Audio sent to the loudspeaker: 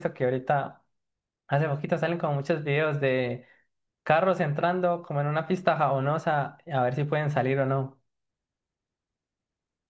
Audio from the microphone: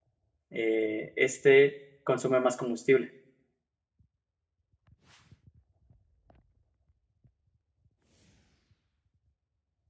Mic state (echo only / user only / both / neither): user only